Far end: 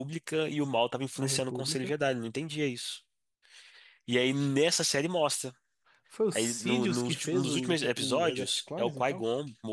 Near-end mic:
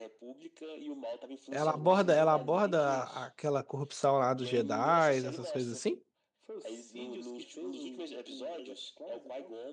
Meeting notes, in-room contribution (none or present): present